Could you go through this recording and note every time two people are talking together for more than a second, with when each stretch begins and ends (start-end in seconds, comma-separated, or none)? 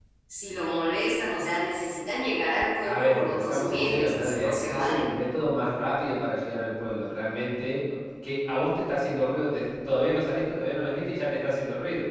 2.8-5.0